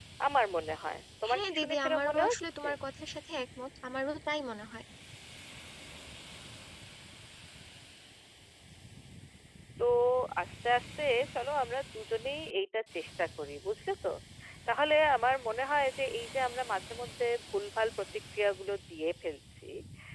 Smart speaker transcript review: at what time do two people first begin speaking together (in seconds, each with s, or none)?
1.3 s